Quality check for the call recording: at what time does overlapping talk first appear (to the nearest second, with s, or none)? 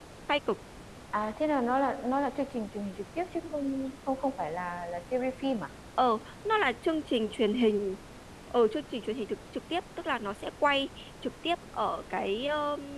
none